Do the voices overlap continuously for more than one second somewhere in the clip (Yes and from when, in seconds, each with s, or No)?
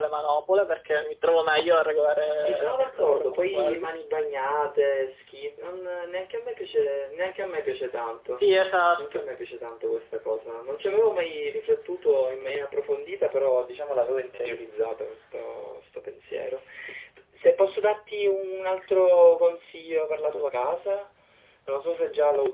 Yes, from 2.3 s